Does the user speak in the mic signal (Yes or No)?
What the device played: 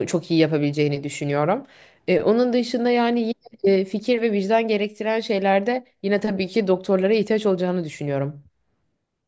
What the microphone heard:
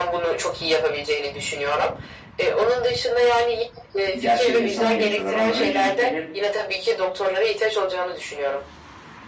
Yes